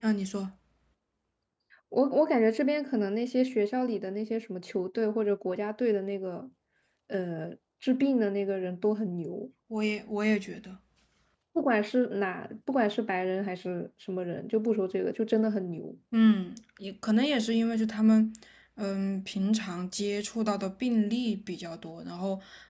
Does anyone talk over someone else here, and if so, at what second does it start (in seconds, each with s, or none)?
none